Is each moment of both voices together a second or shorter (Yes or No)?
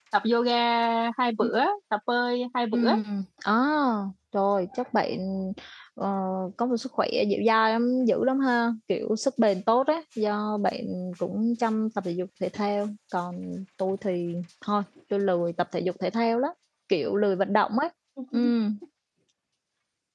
Yes